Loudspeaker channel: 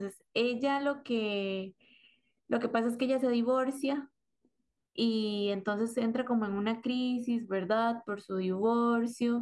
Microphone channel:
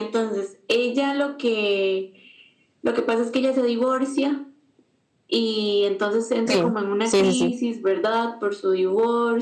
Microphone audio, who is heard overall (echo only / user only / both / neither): both